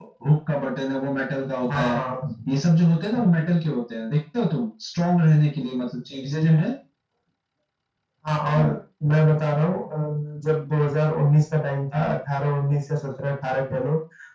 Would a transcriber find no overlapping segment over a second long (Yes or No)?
Yes